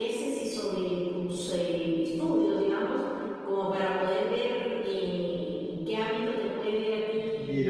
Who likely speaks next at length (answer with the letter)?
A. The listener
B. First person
A